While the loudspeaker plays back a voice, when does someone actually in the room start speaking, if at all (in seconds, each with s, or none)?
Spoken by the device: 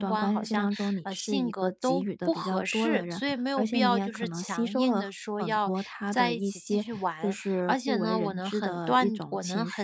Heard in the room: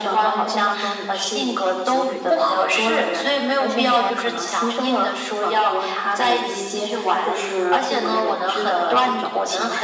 none